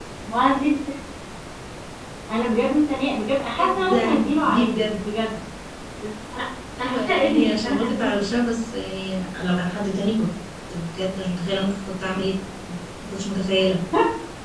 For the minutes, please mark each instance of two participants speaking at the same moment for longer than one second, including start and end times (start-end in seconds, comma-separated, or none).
3.6-4.8, 6.8-8.2